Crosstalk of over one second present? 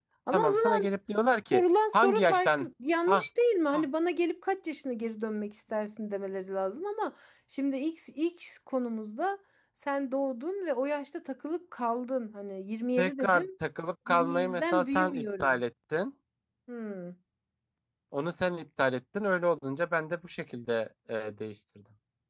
Yes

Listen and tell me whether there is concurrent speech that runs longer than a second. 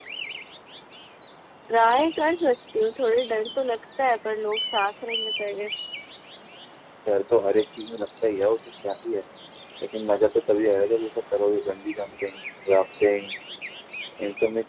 No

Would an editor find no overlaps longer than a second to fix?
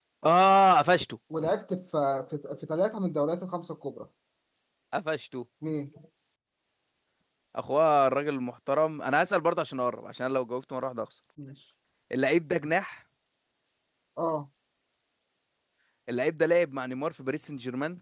Yes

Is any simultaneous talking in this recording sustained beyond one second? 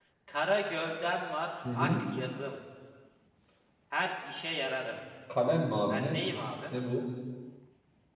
No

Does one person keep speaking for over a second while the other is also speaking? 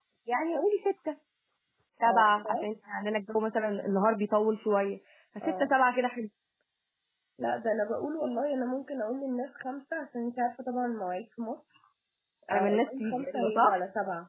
Yes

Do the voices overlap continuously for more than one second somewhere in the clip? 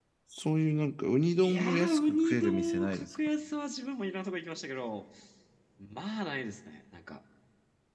Yes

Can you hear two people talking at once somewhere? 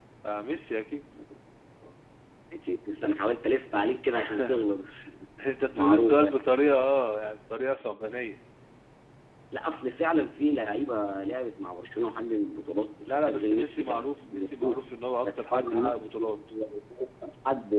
Yes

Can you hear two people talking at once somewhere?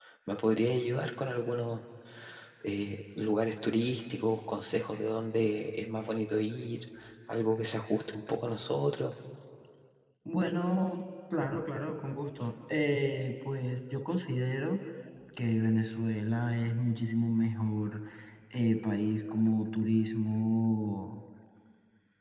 No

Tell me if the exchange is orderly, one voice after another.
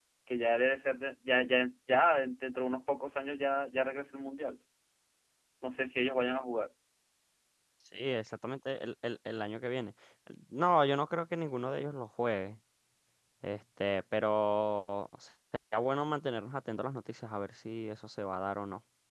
Yes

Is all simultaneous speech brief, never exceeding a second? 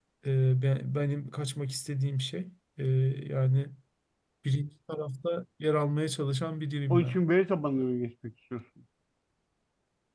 Yes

